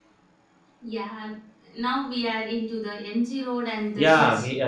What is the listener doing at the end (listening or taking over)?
taking over